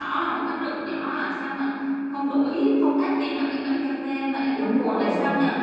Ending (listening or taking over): taking over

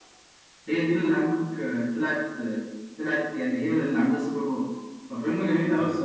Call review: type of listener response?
listening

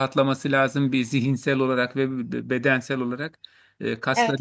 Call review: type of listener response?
listening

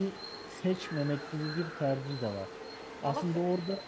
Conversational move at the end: listening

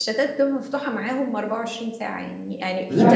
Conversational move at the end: listening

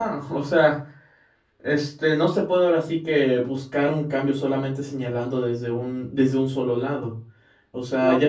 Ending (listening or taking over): listening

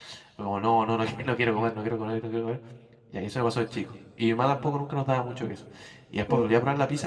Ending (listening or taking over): listening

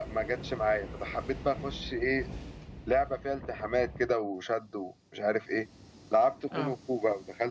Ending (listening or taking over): listening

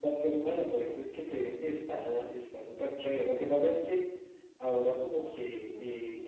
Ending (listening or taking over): listening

